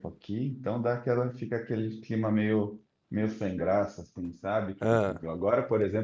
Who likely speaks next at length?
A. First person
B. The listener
A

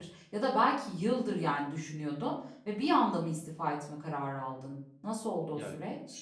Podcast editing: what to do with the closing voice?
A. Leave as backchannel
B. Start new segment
B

